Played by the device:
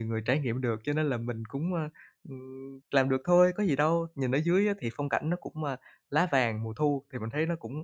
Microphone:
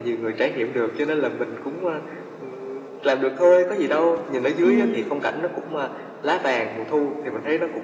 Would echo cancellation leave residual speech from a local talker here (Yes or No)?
Yes